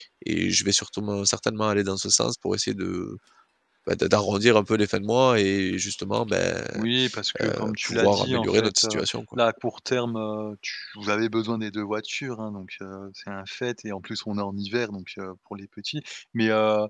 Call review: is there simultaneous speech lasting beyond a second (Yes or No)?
Yes